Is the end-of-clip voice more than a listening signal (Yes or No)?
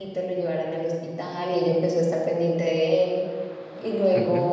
No